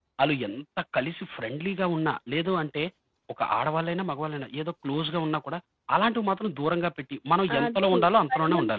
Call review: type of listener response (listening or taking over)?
taking over